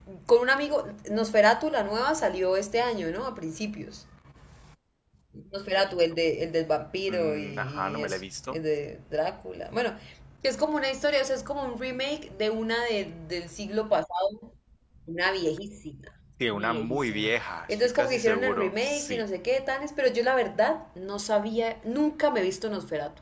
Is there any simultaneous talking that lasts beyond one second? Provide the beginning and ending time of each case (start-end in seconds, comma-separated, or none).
7.1-8.6, 16.5-19.2